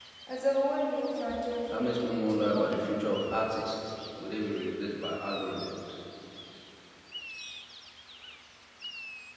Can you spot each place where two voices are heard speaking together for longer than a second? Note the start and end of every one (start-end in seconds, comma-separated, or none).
1.7-2.9